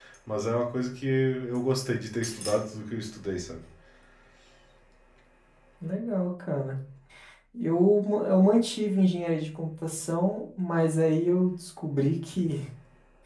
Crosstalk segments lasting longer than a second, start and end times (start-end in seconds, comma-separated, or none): none